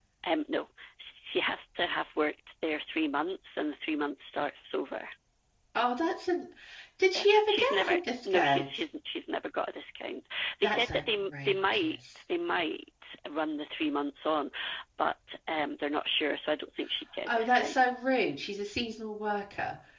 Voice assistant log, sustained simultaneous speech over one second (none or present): present